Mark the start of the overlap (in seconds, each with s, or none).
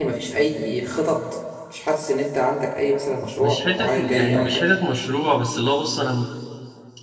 3.4 s